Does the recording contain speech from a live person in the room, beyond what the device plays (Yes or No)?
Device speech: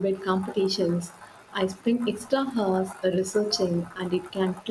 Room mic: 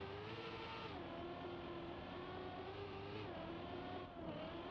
No